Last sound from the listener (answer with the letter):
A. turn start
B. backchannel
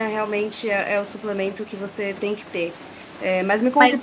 B